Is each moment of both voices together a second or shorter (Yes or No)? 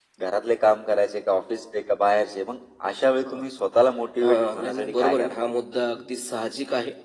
No